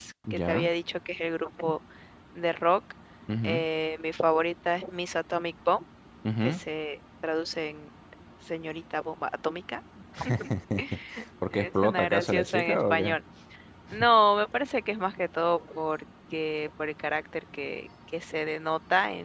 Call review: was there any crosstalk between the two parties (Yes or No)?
Yes